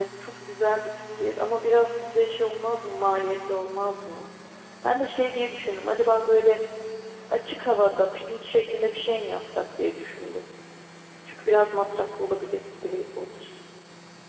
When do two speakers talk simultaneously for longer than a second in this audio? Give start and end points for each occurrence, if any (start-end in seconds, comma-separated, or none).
none